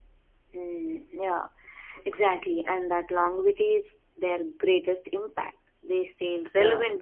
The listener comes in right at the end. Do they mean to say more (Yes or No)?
No